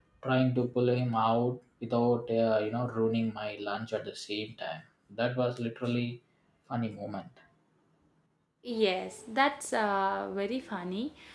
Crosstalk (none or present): none